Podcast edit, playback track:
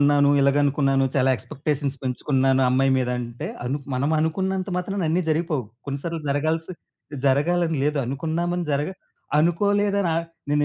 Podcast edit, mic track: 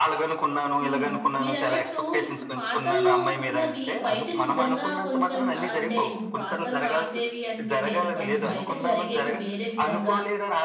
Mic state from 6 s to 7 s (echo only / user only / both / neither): both